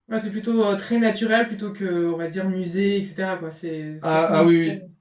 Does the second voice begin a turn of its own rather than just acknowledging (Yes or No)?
Yes